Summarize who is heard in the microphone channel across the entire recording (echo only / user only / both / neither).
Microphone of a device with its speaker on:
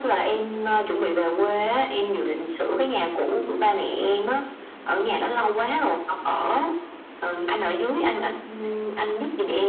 echo only